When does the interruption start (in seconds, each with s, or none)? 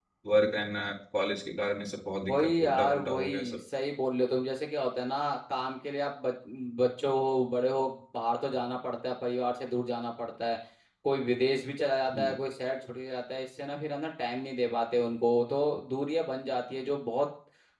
2.3 s